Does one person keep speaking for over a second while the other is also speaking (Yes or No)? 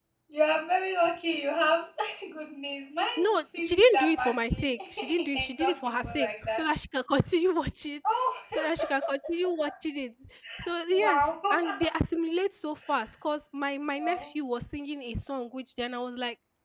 Yes